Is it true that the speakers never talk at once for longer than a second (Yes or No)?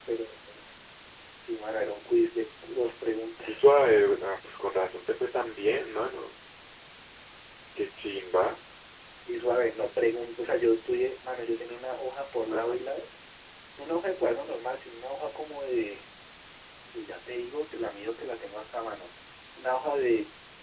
Yes